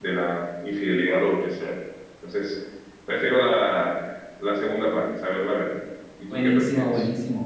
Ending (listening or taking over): taking over